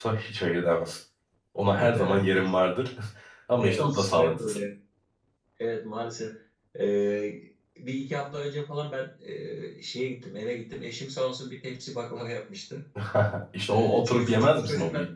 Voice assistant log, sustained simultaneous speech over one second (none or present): present